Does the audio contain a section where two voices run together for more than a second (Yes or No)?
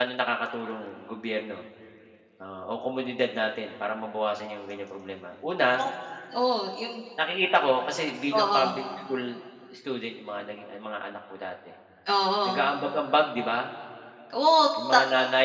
No